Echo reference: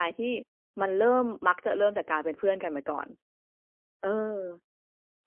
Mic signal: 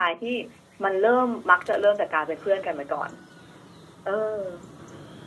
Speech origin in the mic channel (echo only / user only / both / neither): echo only